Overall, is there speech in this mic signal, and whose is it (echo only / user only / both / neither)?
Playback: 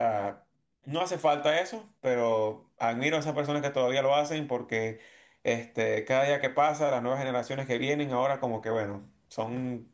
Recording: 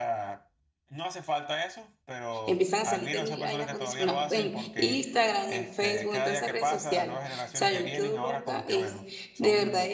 both